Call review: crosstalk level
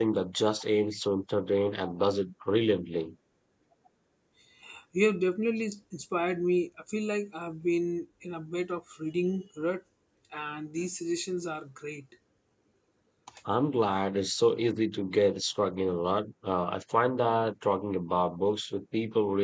none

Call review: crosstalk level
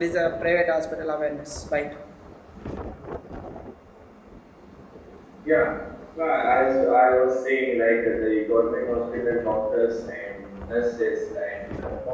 none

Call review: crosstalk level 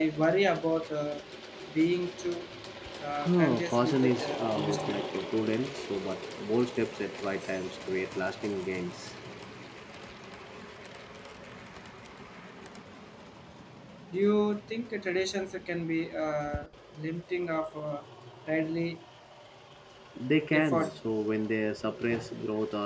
present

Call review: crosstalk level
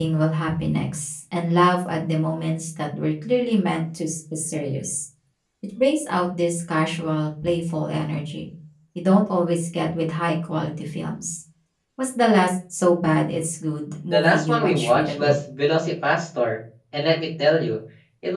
present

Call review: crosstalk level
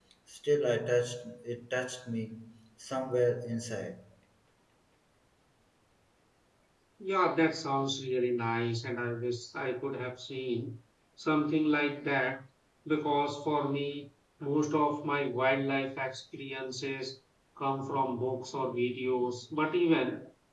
none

